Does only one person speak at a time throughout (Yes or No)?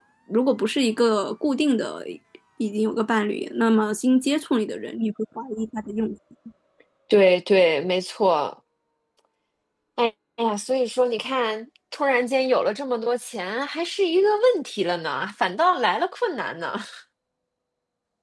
Yes